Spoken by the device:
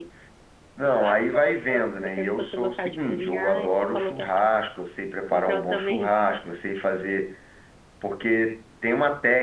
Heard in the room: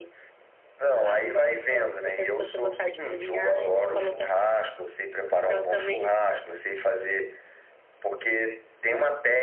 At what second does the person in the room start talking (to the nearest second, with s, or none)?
none